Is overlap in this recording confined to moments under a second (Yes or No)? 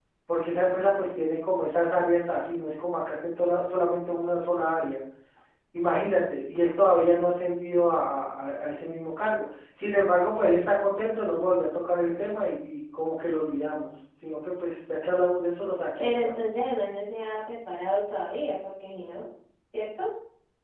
Yes